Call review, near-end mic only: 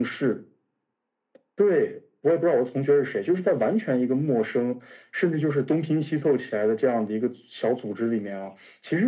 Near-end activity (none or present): none